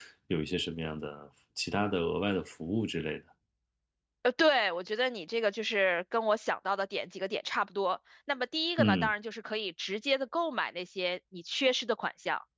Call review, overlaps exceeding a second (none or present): none